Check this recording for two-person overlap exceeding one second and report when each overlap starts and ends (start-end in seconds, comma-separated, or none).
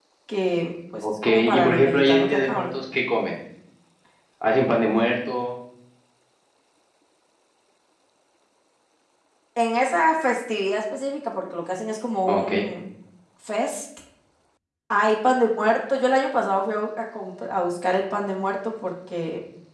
1.0-2.8